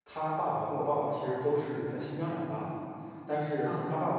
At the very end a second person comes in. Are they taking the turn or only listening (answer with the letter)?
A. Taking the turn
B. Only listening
B